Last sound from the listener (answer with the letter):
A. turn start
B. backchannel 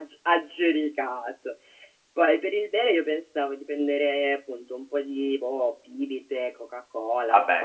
B